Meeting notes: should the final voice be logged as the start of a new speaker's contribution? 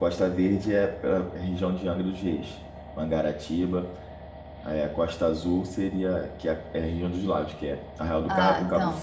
No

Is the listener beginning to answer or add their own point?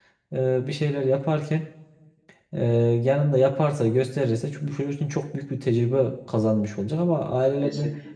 No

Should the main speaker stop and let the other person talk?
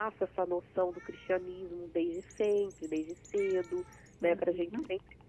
No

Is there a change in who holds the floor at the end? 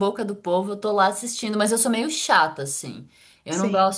No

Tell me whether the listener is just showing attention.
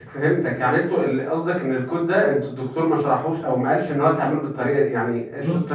No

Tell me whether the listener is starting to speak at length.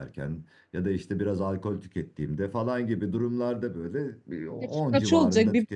Yes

